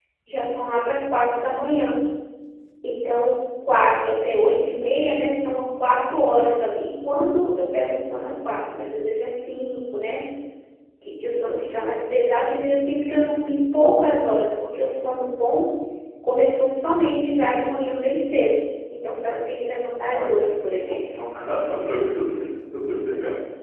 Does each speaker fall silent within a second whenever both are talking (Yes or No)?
Yes